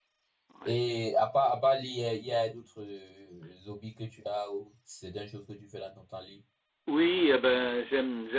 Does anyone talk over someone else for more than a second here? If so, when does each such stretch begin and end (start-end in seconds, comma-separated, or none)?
none